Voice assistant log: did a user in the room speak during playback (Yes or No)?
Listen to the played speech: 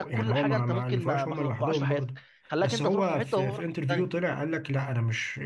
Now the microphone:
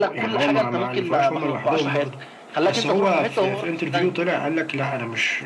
No